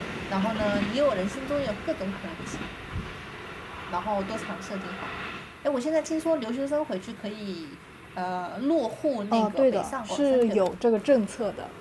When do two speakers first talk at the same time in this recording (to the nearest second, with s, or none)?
9 s